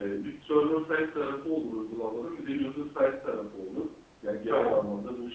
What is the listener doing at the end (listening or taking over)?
listening